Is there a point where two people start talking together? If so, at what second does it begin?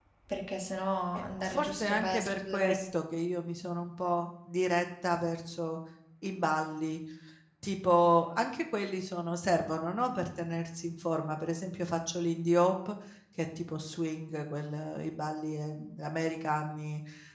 1.2 s

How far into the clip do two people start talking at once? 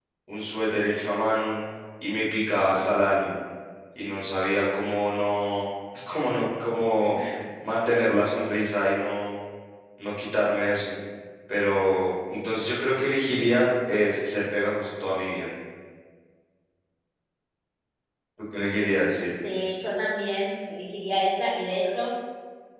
none

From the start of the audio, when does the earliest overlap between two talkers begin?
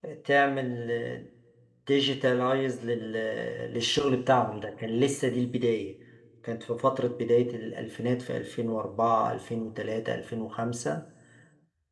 none

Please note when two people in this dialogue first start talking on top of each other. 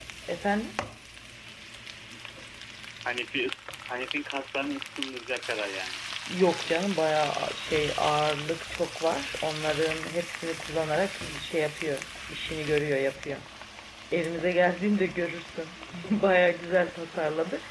none

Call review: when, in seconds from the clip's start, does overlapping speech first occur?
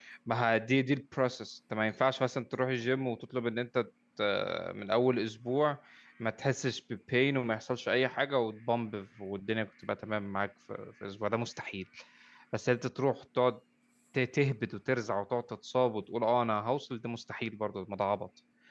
none

